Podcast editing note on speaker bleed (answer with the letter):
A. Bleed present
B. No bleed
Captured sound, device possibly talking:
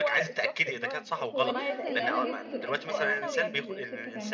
A